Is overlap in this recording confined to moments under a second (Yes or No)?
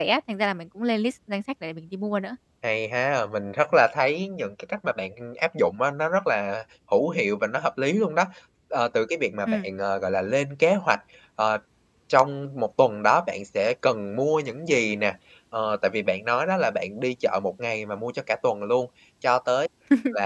Yes